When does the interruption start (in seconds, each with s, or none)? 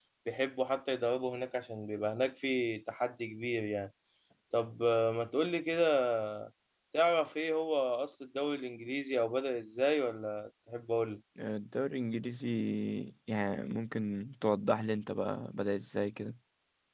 none